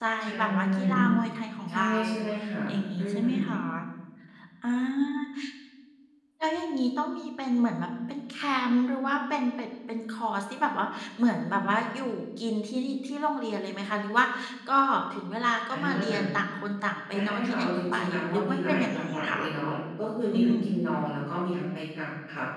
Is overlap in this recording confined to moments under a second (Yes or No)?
No